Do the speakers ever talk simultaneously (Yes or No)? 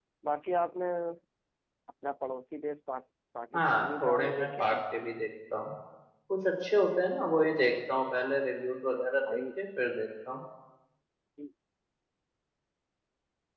Yes